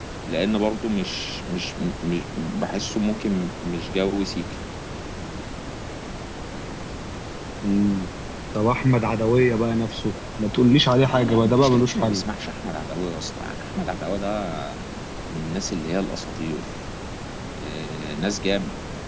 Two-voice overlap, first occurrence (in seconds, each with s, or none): 11.0 s